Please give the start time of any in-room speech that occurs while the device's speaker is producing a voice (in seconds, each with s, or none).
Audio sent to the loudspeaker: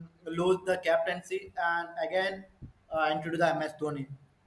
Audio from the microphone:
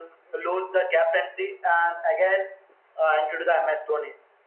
none